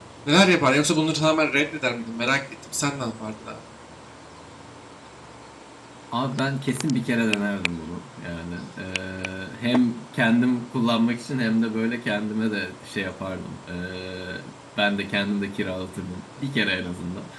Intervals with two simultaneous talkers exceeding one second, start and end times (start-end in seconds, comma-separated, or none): none